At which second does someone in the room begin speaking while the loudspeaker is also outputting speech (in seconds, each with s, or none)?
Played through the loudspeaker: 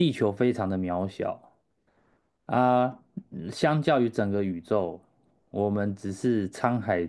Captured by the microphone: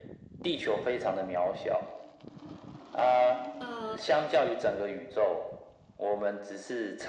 3.6 s